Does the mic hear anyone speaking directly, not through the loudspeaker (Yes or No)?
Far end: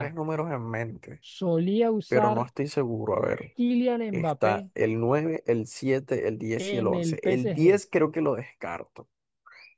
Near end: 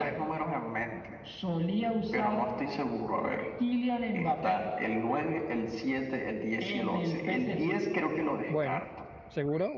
Yes